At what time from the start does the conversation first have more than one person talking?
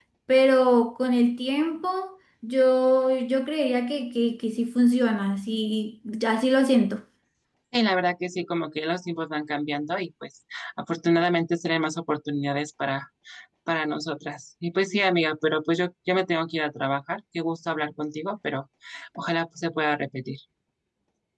none

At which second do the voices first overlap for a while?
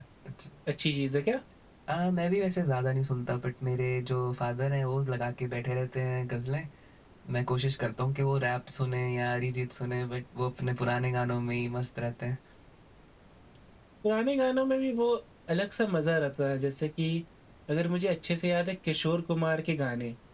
none

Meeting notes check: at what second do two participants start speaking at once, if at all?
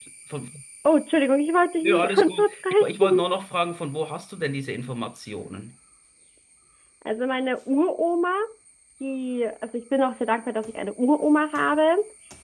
1.8 s

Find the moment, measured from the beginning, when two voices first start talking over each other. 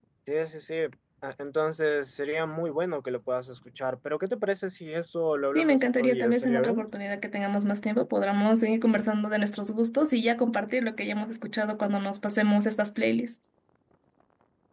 5.5 s

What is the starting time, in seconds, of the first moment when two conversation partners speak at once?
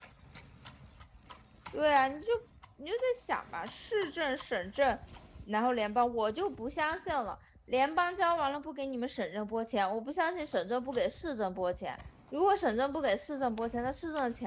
none

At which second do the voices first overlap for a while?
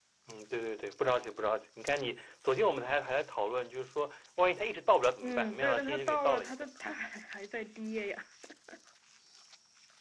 5.2 s

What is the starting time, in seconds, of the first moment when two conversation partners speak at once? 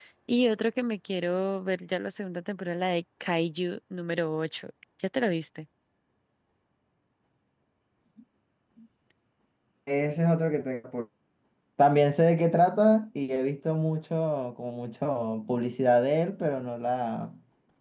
none

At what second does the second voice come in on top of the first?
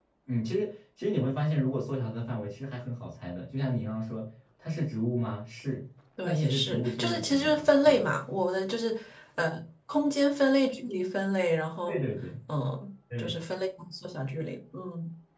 6.2 s

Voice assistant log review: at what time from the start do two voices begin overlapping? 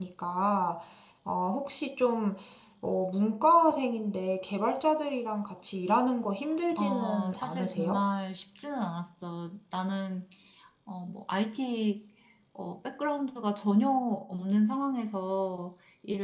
6.7 s

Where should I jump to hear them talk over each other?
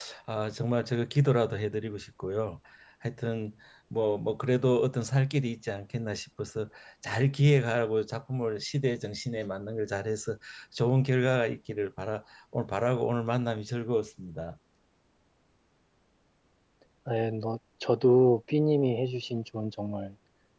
none

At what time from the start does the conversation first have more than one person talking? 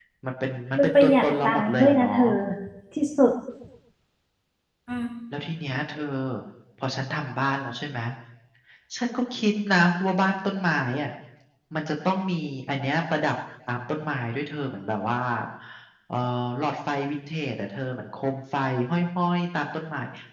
0.8 s

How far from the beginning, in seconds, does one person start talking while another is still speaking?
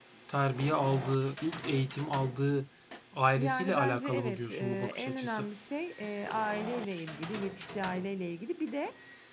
3.4 s

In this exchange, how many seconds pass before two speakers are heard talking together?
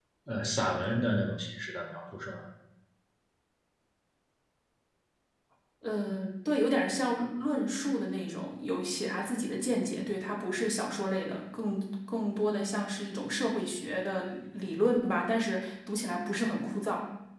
none

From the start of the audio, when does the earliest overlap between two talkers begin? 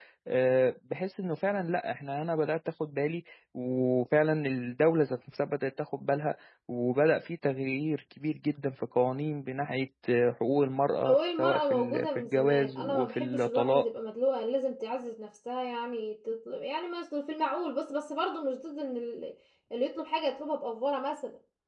11.0 s

